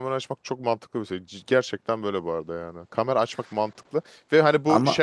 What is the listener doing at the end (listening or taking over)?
listening